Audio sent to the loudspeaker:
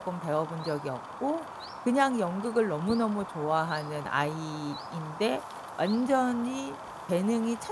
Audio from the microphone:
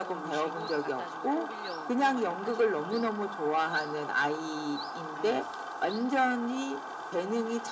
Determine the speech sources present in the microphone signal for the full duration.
both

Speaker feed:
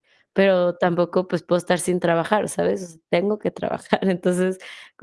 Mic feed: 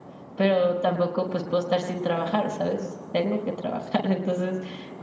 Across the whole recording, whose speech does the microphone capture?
echo only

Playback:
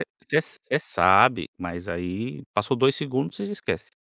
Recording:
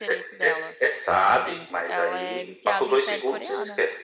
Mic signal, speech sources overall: both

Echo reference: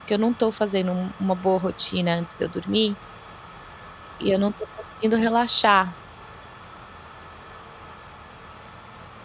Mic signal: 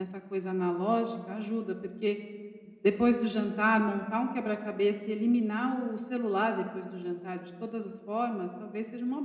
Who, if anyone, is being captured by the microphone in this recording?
user only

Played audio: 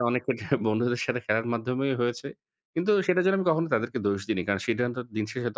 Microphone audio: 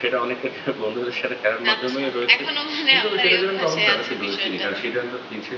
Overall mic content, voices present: both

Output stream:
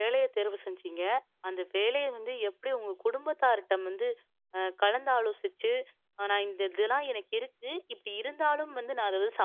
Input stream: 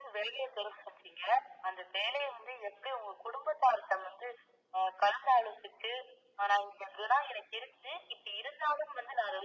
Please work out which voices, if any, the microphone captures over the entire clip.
echo only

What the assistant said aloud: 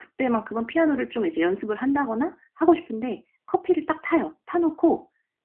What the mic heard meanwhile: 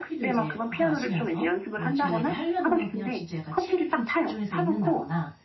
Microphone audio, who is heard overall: both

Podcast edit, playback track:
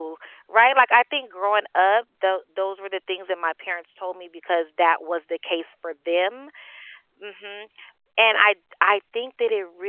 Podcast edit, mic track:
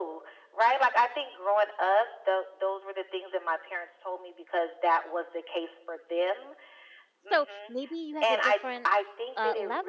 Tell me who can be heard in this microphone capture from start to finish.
both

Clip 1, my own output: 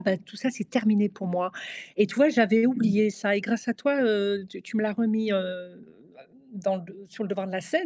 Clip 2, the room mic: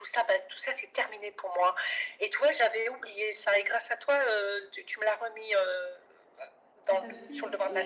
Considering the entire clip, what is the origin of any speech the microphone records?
both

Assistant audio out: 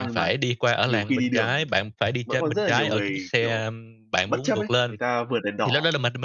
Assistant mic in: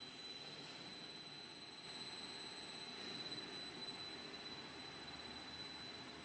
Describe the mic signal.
neither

